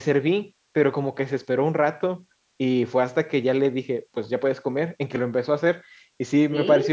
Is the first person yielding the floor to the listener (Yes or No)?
No